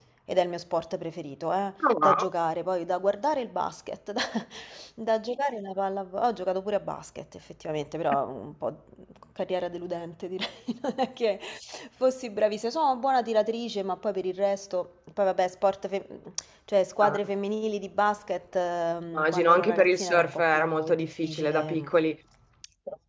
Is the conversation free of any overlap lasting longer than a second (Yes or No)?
No